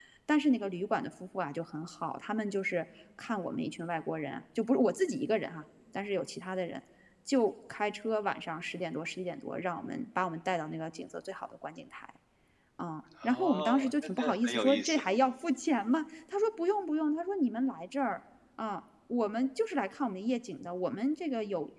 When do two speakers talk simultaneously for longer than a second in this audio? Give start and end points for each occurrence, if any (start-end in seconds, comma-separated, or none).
13.2-15.0